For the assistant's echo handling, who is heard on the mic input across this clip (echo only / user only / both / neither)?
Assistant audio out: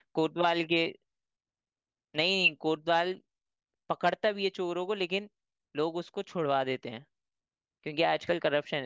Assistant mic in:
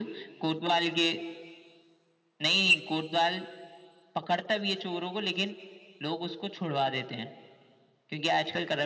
echo only